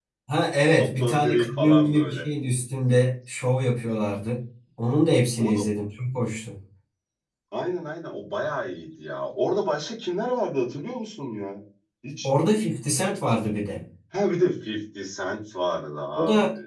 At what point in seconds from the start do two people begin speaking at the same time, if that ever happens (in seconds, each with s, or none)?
0.8 s